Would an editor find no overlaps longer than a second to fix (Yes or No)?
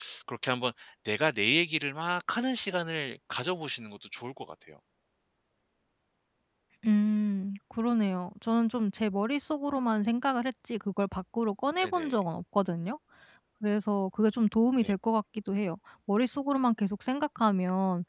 Yes